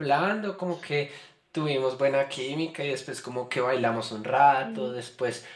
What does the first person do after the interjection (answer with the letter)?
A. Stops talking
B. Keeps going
B